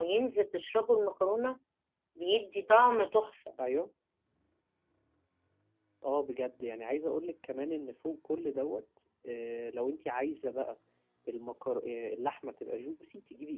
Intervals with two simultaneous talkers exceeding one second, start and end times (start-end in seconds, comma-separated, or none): none